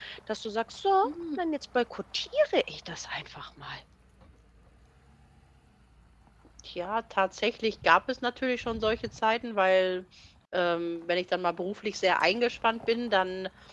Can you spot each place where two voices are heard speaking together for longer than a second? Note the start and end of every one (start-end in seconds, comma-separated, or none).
none